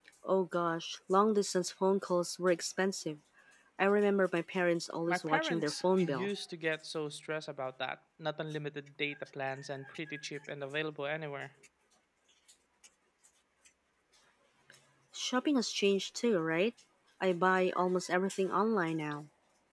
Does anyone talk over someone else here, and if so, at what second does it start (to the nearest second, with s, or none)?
5 s